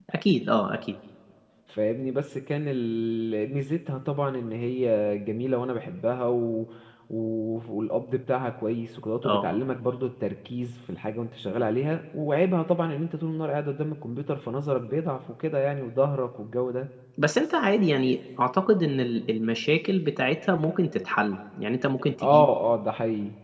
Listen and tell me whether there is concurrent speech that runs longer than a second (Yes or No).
No